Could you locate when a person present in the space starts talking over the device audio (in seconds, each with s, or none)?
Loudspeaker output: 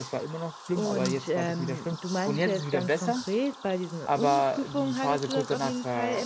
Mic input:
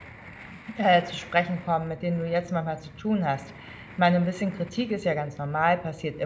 0.8 s